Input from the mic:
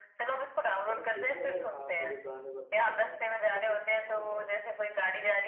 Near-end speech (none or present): present